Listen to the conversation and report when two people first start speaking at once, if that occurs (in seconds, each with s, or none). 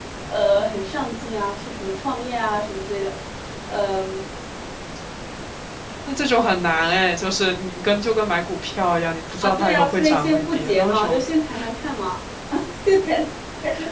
9.4 s